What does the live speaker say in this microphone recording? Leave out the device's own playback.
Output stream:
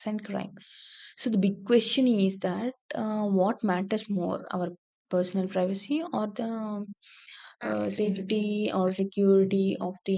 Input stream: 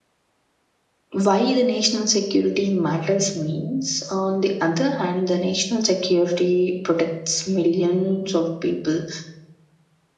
why the national security matters means, on the other hand, the national security protects millions of people

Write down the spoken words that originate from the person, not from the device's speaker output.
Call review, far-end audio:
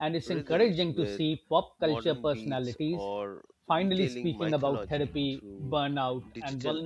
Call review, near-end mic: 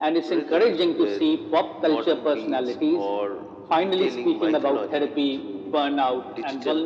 none

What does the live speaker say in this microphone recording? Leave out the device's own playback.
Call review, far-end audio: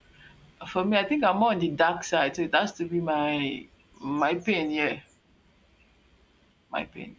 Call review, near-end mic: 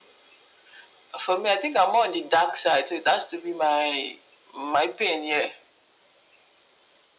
none

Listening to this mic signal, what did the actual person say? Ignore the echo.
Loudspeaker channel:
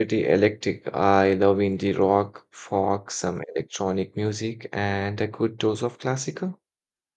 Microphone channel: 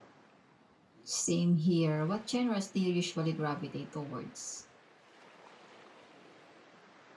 Same here. What genres do you usually gravitate towards?

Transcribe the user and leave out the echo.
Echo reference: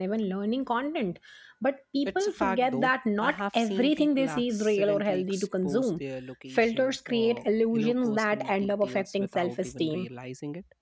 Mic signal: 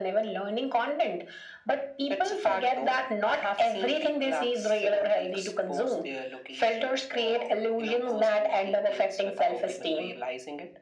none

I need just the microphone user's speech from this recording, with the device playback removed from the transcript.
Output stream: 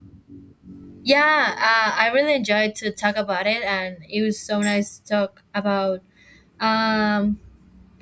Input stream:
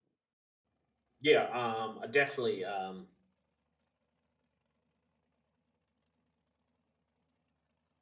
yeah um I definitely um

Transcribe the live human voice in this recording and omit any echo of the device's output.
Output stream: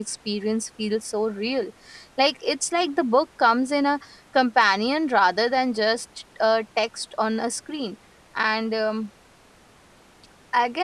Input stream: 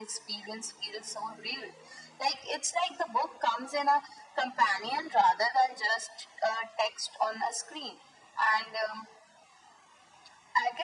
none

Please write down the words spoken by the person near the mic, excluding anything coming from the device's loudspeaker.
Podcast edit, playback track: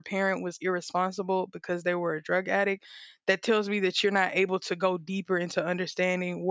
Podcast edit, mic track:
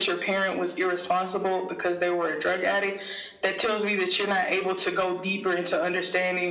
none

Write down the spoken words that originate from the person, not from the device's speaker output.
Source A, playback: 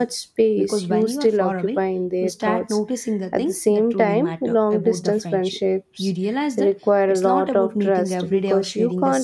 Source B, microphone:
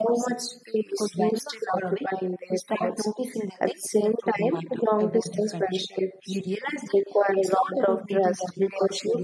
none

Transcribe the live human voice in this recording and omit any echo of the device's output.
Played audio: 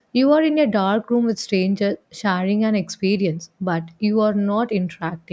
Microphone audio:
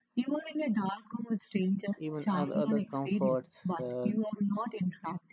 even other, other comforts uh,

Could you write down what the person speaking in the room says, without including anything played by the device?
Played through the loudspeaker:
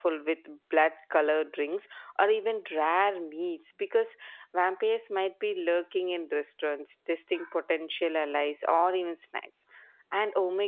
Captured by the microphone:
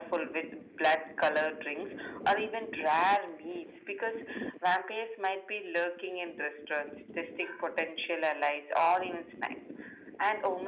none

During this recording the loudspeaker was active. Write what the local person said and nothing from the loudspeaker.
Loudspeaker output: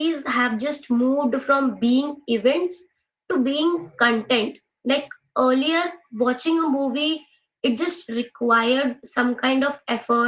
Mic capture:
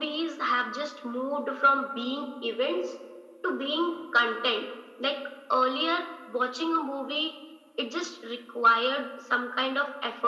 none

